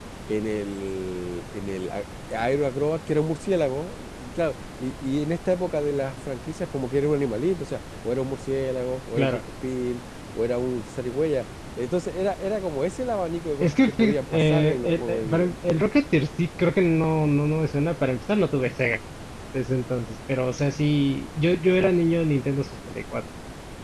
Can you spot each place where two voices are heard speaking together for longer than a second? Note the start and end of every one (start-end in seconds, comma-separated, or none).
13.6-15.5